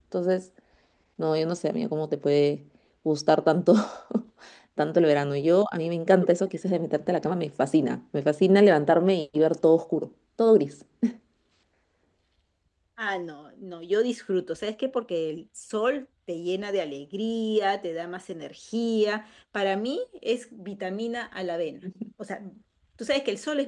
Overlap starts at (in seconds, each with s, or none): none